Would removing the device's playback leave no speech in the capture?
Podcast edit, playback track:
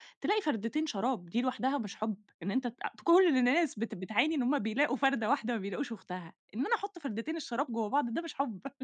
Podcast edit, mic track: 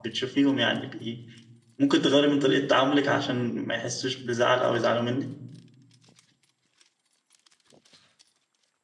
No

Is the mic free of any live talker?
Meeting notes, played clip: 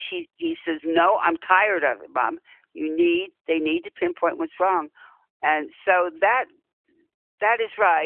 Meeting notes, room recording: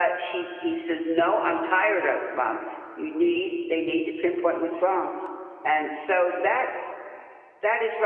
Yes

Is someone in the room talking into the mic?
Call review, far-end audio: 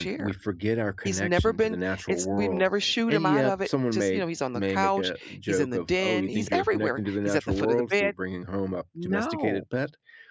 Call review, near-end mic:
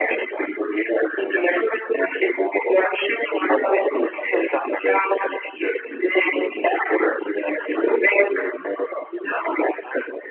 No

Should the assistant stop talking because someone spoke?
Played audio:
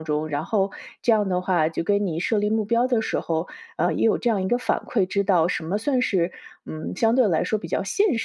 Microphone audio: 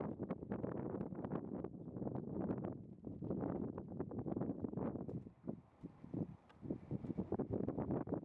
No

